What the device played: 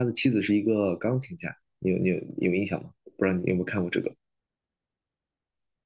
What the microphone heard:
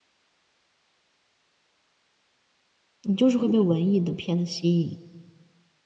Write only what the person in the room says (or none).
你就是会被文艺的片子吸引。